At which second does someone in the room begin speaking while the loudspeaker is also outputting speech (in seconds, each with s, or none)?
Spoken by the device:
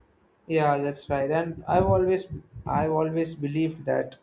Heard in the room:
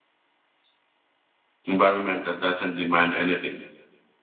1.6 s